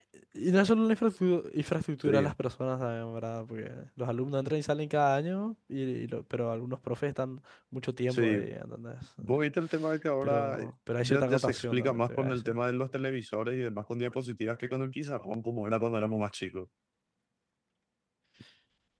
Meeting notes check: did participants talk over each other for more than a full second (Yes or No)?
Yes